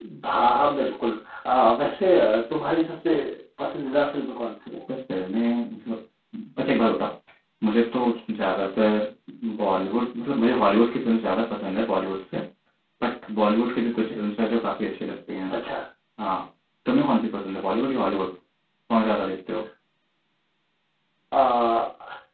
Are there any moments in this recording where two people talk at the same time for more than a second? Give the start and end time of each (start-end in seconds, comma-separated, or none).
none